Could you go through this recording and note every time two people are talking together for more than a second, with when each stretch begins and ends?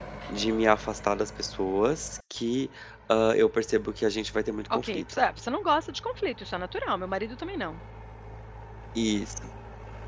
none

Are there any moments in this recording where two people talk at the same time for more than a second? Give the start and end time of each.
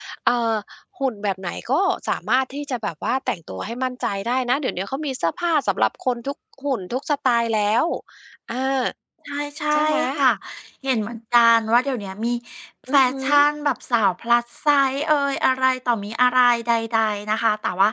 none

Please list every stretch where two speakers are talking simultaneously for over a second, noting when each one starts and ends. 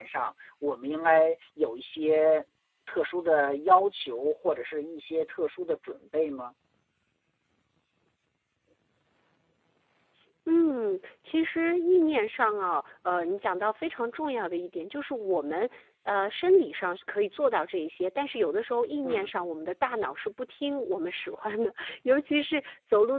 none

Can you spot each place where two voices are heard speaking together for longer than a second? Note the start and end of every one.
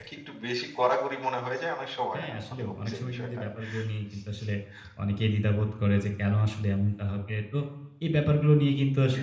2.1-3.4

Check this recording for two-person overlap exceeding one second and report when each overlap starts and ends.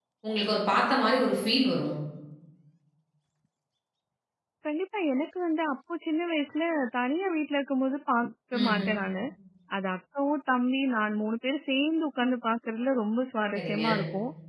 none

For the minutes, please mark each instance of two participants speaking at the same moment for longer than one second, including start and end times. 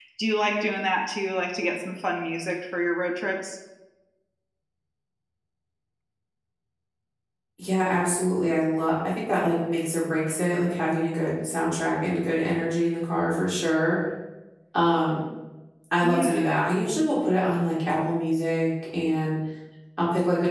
none

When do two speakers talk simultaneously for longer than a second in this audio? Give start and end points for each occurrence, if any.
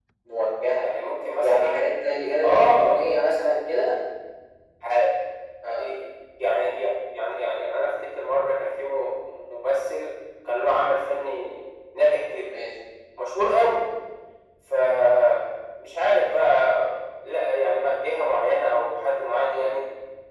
none

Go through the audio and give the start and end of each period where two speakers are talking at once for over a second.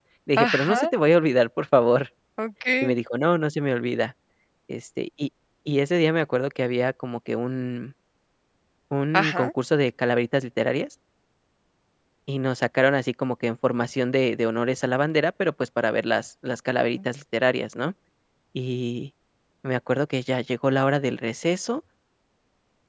none

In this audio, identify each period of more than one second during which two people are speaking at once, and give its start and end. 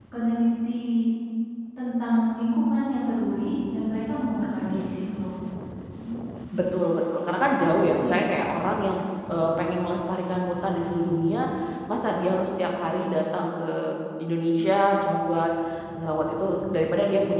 none

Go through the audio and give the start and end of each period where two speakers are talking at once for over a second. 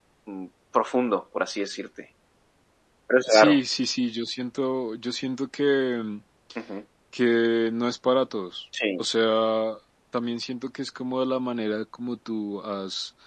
none

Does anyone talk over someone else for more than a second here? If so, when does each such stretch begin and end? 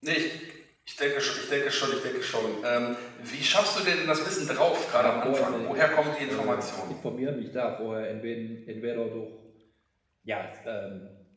5.0-6.9

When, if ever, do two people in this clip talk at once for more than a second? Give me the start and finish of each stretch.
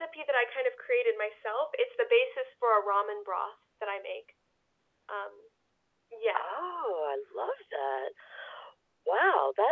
none

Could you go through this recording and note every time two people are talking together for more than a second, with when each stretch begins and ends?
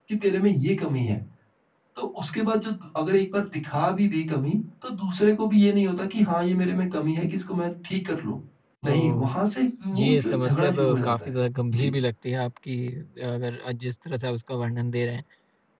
10.0-11.3

